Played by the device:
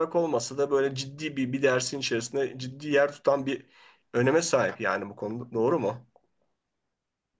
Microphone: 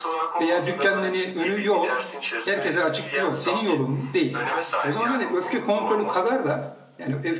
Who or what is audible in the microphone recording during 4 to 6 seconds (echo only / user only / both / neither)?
both